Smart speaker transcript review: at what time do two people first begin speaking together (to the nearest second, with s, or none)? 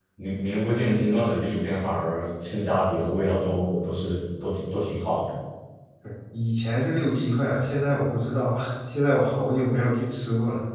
none